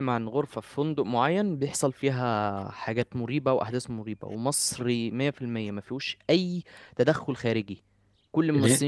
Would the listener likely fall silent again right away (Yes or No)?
Yes